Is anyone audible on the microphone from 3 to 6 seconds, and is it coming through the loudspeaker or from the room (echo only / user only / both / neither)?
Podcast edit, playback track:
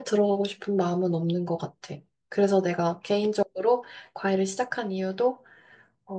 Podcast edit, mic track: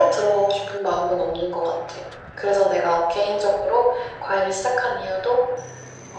echo only